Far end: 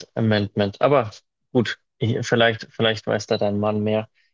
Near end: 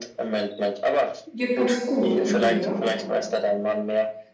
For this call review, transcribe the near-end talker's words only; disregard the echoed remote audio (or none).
Geht ganz gut. Und dir?